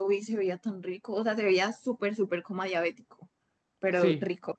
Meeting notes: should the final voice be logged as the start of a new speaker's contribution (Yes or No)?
Yes